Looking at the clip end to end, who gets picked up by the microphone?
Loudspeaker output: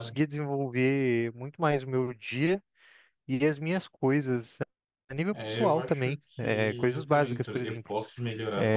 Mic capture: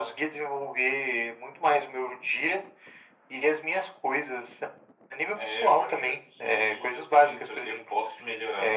echo only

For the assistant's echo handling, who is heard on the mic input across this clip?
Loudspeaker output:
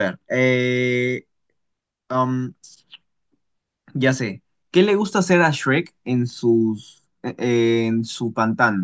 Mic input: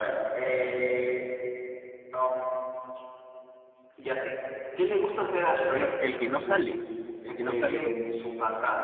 both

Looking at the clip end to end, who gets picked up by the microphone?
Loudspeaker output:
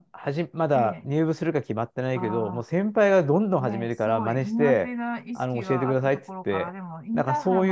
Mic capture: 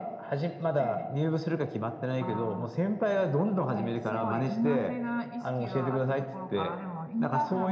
echo only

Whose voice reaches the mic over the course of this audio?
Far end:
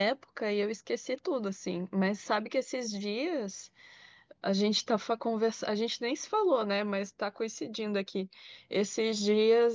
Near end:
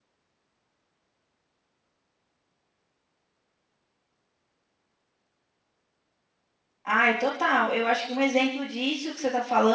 user only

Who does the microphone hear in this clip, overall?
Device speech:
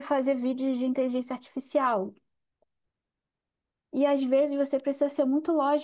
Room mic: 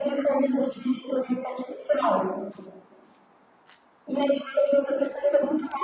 echo only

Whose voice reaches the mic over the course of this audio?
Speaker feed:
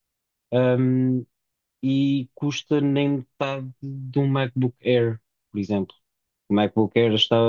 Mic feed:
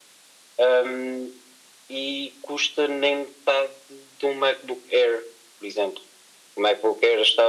echo only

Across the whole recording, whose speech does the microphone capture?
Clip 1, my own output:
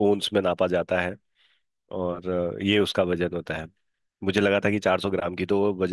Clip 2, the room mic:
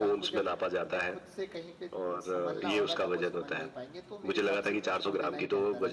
both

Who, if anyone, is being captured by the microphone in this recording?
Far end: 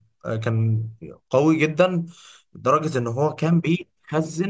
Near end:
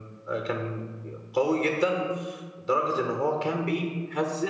echo only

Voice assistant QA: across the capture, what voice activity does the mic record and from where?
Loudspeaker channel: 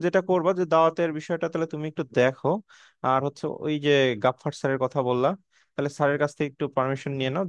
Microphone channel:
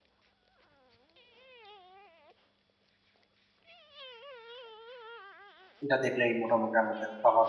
user only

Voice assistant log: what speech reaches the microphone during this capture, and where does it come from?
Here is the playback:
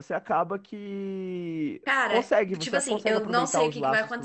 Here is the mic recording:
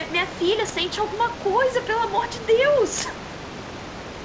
user only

